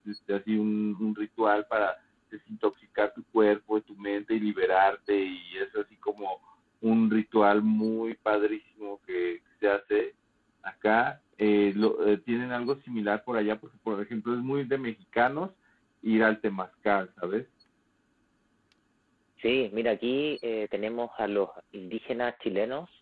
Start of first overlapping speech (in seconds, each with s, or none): none